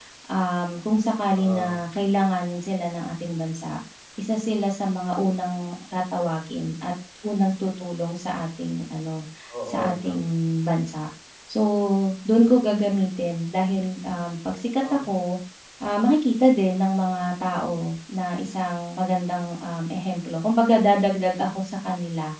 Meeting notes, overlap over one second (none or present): none